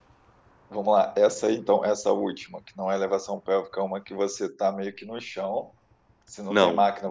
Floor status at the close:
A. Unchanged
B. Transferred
B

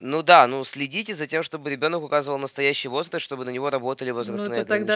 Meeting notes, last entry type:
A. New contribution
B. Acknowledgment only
A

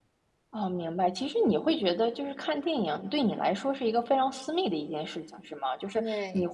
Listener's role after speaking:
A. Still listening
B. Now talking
A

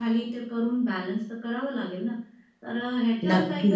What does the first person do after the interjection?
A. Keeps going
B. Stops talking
A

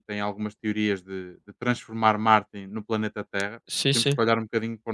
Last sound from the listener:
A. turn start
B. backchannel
B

